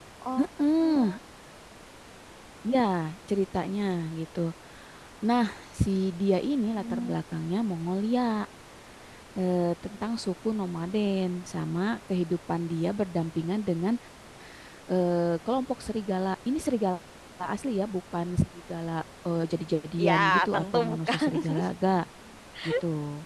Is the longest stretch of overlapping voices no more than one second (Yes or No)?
No